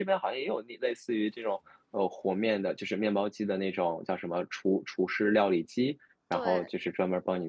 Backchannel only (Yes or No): Yes